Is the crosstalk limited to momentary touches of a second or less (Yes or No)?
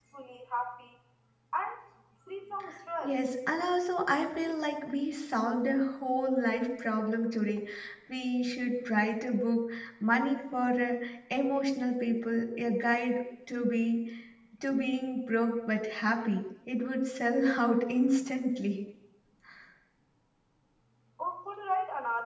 Yes